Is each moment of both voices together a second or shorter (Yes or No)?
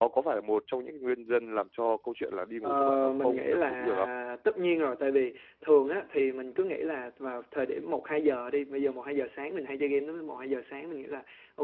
No